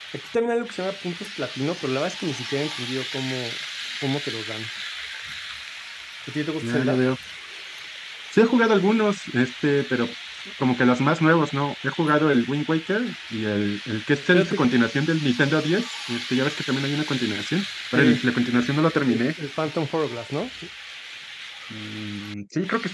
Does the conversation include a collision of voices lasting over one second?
No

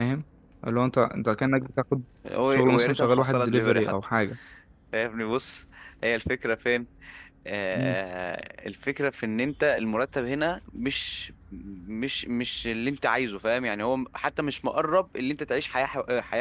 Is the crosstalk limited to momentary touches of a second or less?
No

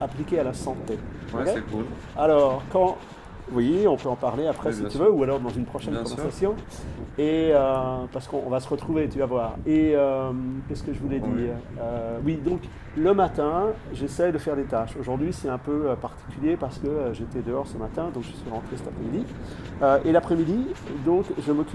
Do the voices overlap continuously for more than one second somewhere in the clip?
No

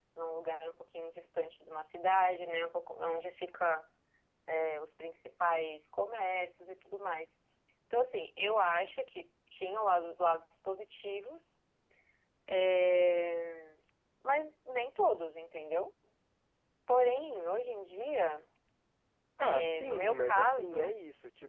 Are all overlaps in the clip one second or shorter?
No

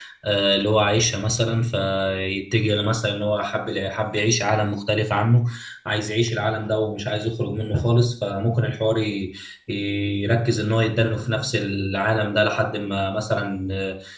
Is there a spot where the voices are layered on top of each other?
No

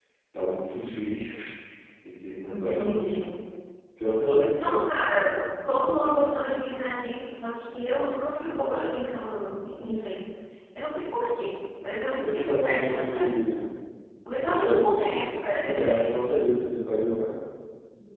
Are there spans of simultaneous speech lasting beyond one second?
Yes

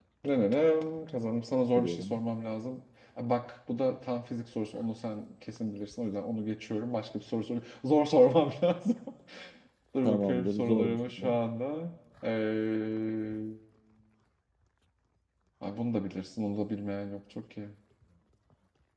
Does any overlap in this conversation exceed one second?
Yes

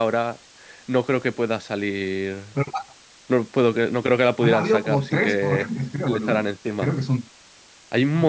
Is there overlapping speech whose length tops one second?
Yes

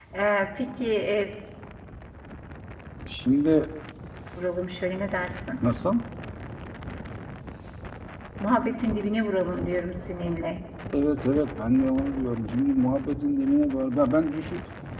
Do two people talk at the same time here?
No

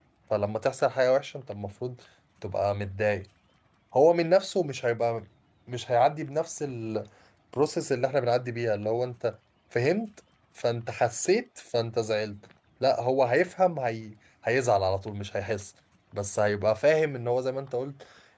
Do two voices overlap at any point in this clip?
No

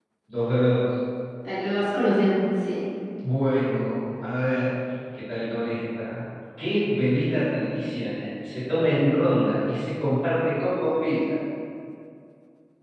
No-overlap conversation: Yes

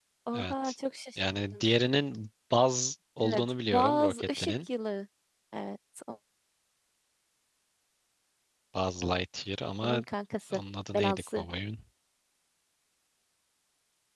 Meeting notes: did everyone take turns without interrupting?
No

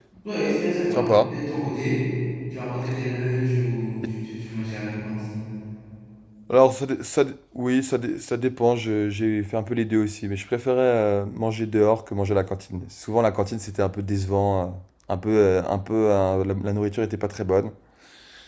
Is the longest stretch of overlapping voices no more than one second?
Yes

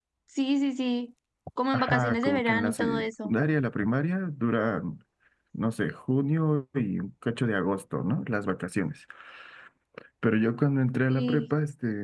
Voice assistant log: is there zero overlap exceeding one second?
No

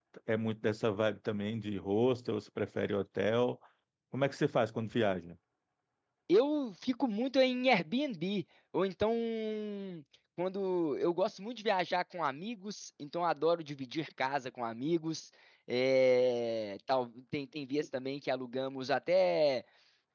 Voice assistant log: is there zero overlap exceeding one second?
Yes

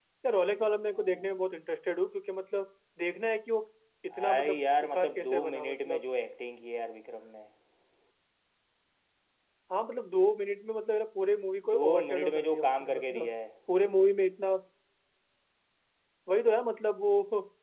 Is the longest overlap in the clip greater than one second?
Yes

